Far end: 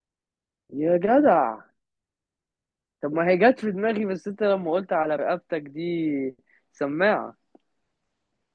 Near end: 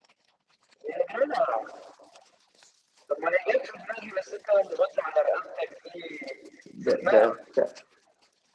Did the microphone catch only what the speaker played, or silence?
No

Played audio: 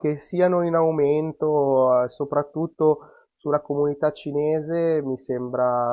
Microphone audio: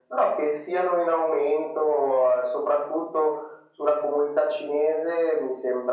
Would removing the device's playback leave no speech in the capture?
Yes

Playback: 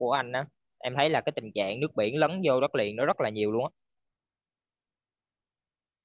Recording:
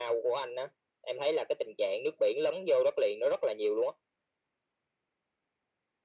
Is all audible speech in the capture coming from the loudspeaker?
Yes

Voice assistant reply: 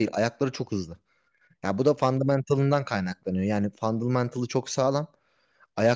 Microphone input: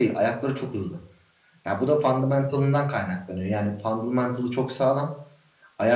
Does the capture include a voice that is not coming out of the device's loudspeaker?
No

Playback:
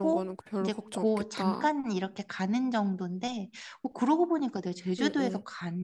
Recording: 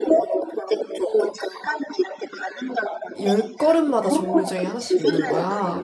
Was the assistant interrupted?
Yes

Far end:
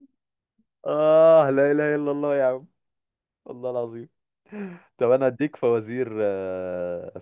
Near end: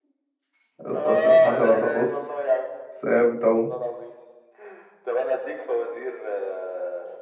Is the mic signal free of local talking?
No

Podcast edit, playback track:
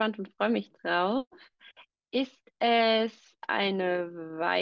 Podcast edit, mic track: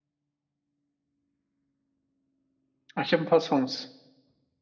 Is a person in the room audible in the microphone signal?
Yes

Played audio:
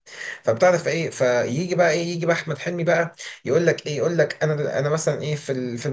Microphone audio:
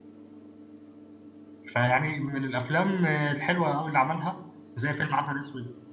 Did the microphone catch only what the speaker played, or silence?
No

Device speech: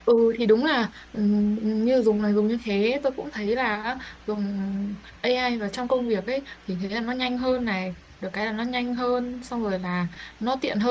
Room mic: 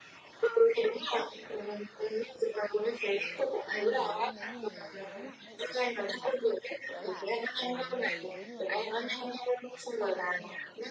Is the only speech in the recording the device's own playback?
No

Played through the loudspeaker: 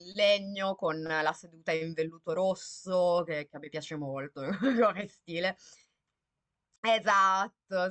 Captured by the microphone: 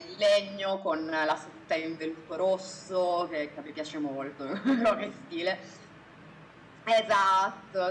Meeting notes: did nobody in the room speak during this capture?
Yes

